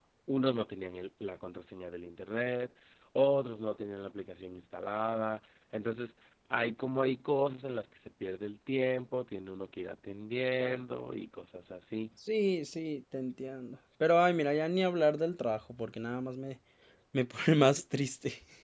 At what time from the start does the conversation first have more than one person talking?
none

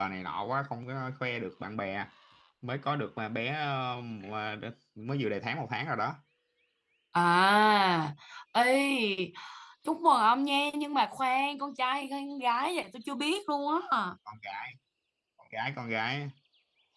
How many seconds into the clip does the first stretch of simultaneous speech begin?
none

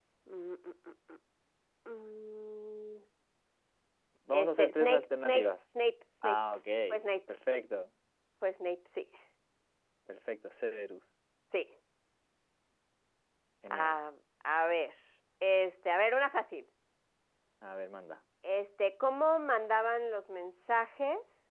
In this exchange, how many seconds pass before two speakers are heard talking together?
4.3 s

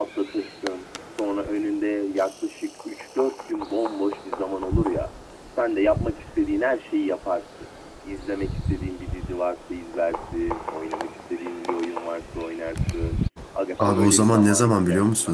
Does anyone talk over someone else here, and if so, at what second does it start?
13.8 s

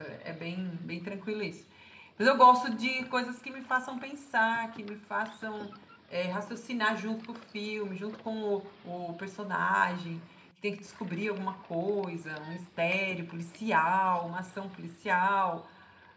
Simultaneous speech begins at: none

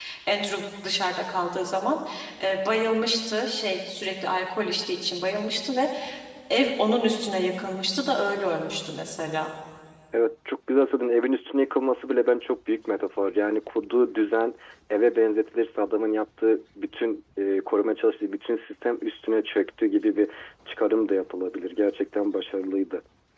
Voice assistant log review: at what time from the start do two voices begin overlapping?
none

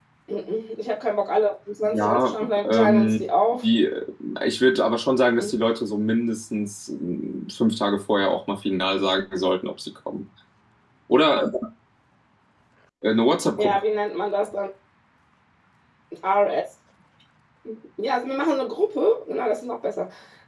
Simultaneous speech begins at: 1.8 s

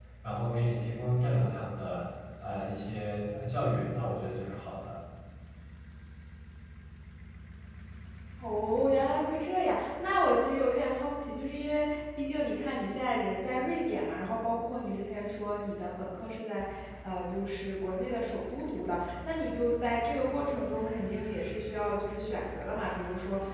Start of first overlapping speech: none

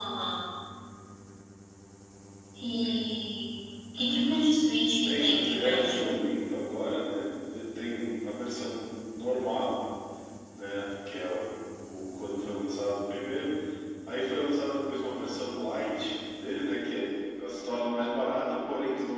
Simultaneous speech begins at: 5.0 s

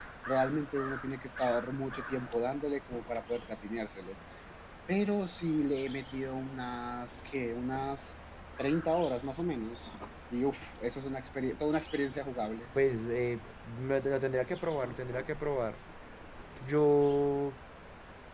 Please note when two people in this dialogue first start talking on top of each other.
none

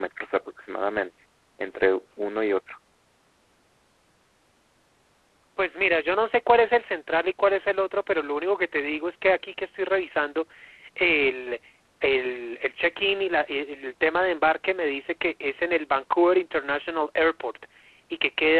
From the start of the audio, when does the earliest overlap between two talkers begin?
none

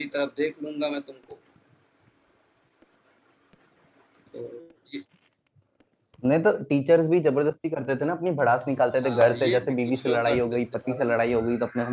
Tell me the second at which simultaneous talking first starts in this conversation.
9.0 s

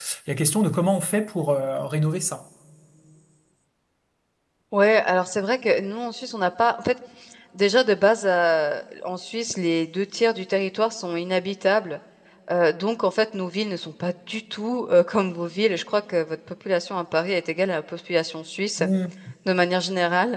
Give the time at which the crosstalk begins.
none

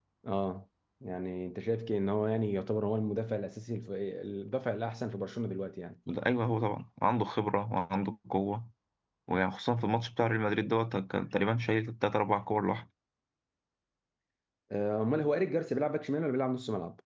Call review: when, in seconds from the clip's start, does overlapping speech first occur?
none

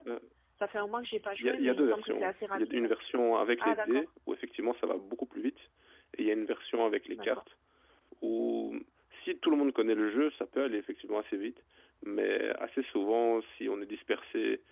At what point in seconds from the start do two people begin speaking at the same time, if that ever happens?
1.4 s

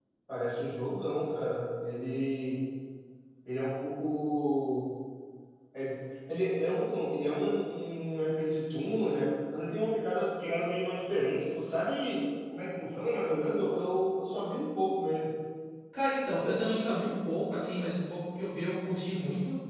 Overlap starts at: none

